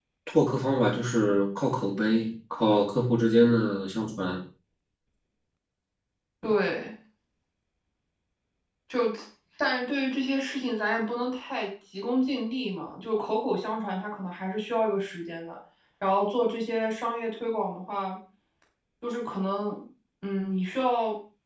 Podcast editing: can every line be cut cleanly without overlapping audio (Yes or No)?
Yes